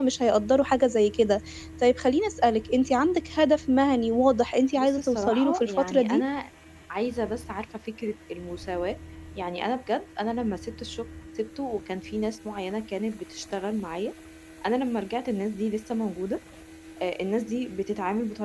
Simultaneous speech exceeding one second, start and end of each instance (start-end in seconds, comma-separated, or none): 4.8-6.2